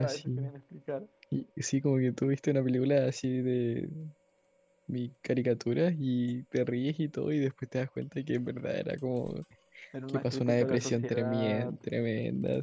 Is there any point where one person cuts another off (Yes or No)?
Yes